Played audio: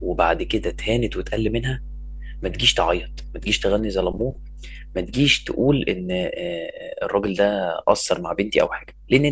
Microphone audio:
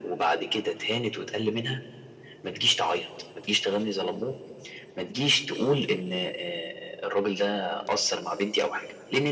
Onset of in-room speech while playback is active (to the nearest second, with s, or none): none